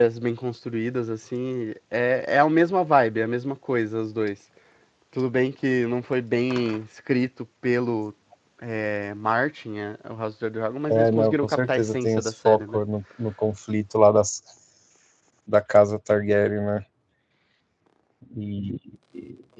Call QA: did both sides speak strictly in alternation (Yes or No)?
No